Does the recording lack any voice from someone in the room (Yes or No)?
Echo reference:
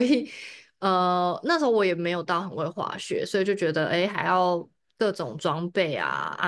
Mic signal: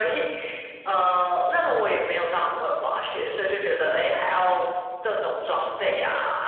Yes